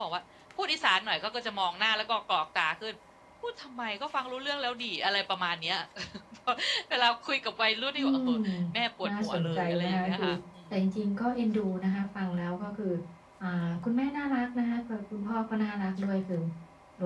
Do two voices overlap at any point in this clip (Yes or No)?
Yes